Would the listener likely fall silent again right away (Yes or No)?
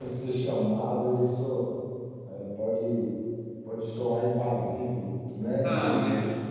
No